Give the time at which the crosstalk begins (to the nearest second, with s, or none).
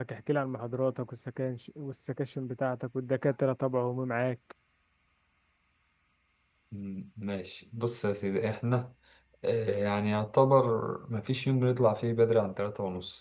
none